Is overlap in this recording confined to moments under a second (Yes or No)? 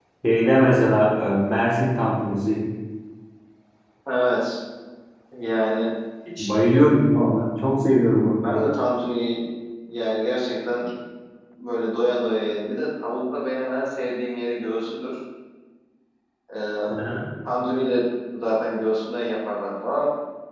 Yes